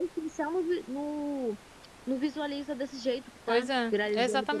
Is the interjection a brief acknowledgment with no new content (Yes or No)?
No